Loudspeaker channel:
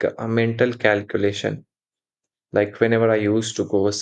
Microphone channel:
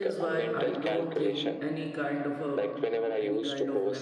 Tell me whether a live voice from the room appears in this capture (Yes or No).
Yes